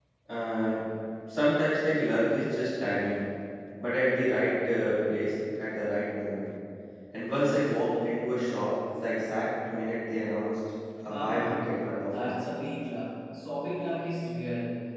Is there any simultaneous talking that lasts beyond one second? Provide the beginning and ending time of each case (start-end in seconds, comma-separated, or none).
11.1-12.3